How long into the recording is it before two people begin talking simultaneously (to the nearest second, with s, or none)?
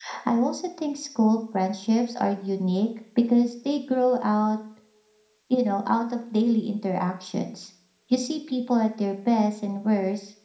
none